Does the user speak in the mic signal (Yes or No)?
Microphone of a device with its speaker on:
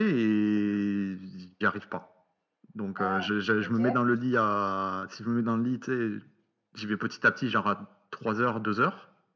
Yes